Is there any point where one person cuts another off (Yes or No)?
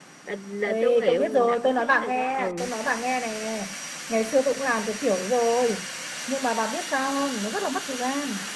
Yes